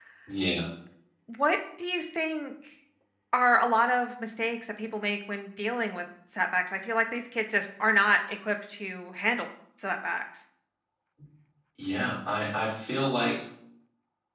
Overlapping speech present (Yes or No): No